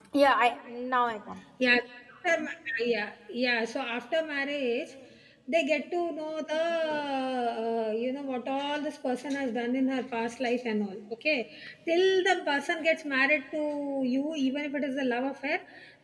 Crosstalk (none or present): none